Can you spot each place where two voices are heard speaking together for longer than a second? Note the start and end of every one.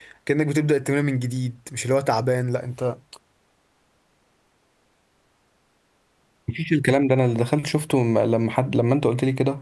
none

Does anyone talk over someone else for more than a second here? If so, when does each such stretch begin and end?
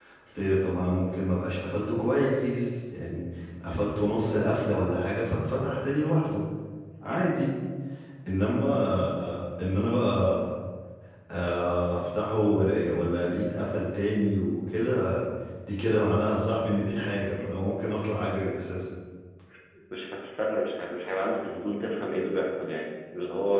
none

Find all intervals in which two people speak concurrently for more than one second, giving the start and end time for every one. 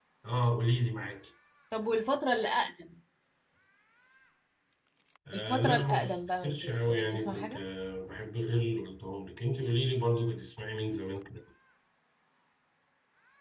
5.3-7.6

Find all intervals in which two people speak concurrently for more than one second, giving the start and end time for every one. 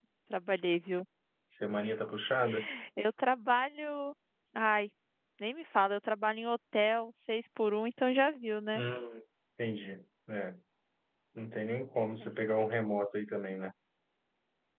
none

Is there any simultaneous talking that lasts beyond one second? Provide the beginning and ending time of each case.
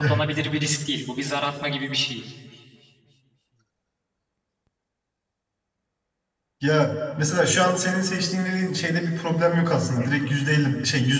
none

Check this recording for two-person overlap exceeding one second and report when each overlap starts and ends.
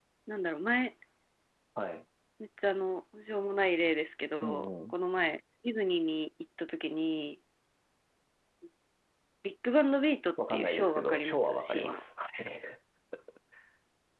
10.5-12.0

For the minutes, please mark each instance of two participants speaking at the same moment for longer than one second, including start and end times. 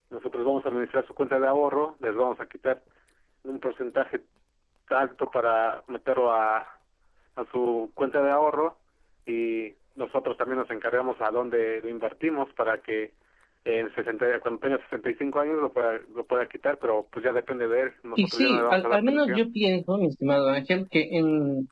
18.2-19.4

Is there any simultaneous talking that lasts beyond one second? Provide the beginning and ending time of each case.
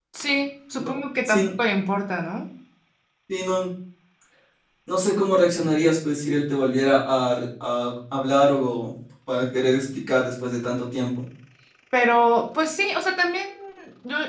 none

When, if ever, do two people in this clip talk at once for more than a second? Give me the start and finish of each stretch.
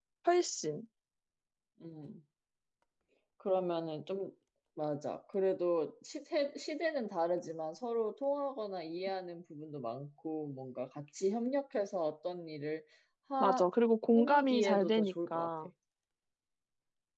14.1-15.5

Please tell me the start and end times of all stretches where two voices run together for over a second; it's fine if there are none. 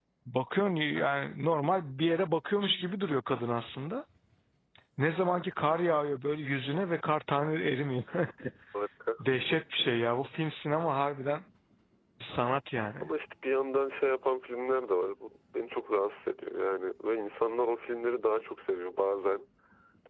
none

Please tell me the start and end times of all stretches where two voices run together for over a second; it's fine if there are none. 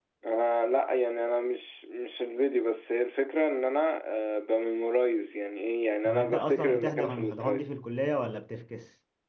6.0-7.7

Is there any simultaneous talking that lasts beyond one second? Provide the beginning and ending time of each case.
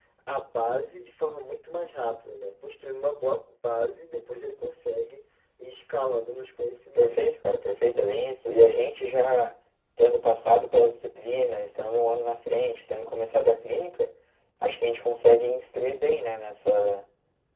none

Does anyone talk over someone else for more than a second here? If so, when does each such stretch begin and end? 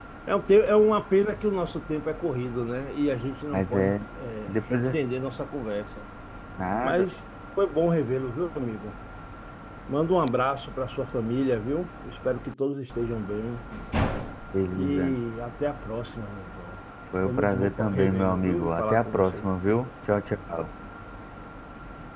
17.2-19.5

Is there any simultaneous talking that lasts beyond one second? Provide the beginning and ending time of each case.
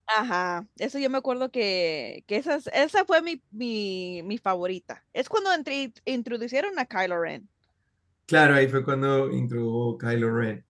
none

